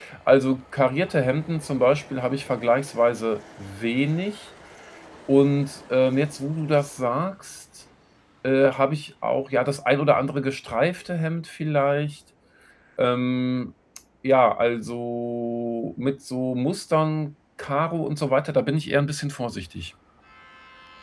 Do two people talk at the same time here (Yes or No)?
No